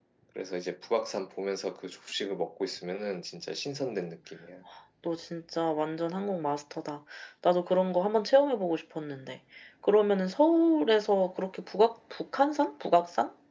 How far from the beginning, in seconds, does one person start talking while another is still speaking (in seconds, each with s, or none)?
none